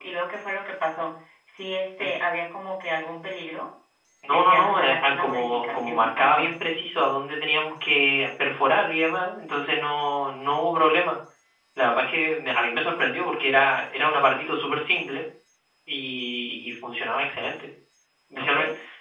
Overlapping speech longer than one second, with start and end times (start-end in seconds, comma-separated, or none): 4.2-6.5